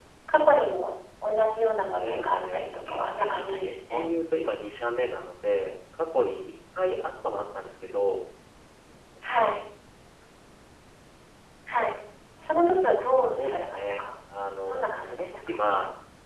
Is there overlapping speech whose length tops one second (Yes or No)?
Yes